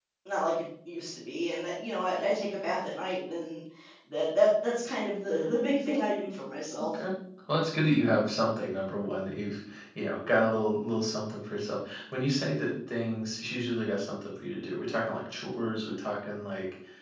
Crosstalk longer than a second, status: none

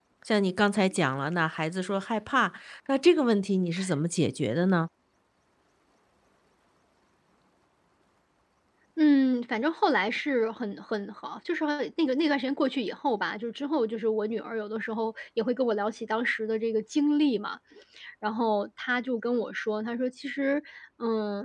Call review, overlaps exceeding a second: none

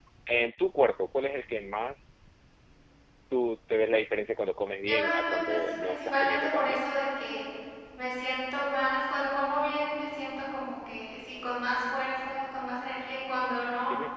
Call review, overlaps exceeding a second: present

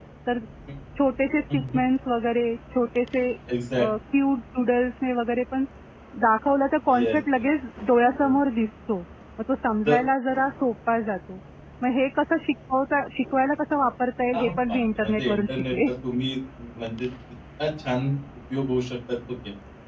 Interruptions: present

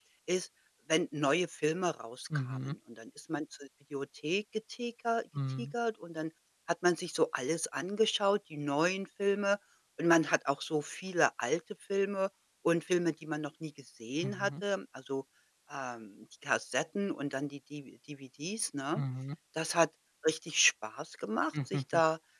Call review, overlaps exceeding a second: none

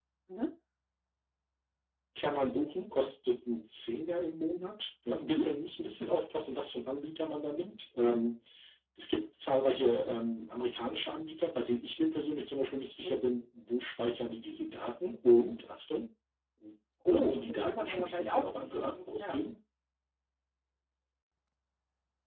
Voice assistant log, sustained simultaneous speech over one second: present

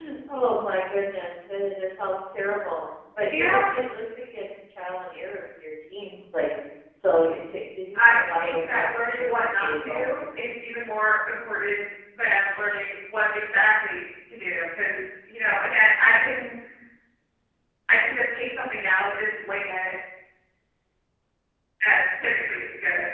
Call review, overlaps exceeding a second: present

